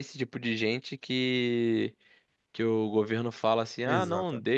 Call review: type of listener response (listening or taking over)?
listening